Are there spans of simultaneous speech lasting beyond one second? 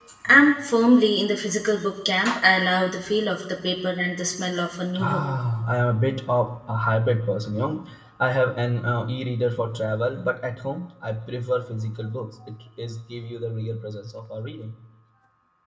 No

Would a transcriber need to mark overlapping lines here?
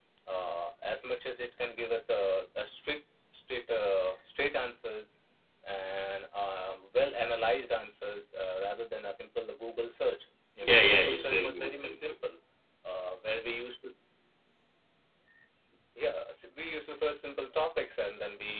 Yes, from 10.6 s

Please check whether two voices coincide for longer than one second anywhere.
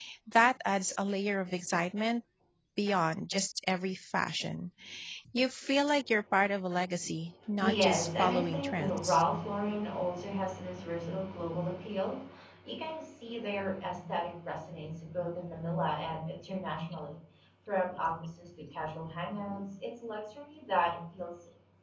Yes, from 7.6 s

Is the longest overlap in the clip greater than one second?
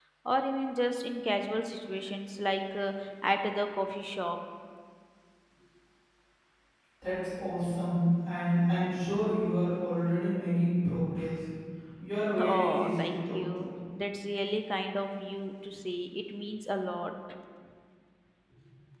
Yes, from 12.4 s

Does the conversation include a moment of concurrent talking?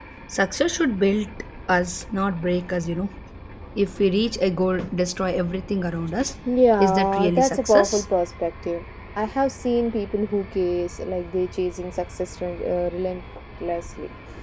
Yes, from 6.8 s

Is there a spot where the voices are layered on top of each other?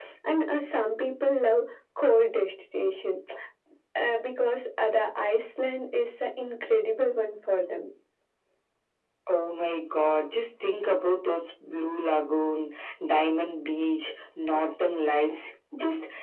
No

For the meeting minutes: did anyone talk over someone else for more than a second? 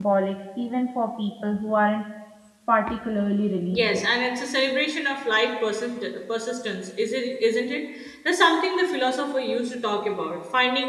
No

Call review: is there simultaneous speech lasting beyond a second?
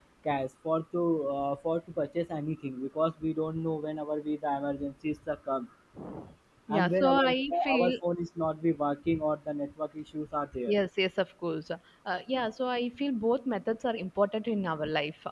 Yes, from 6.7 s

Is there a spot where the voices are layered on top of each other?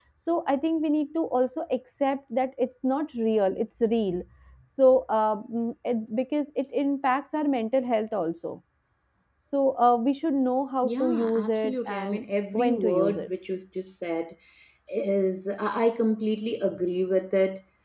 Yes, from 10.8 s

